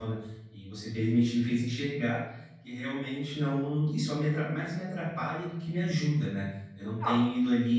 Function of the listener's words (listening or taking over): listening